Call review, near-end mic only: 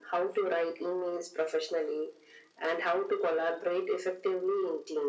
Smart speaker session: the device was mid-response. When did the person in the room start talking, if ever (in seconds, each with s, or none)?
none